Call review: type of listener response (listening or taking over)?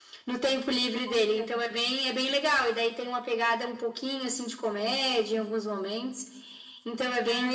taking over